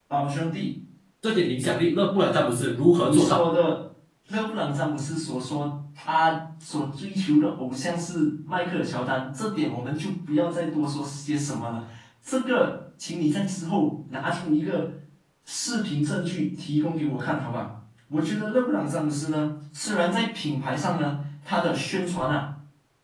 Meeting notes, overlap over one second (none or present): none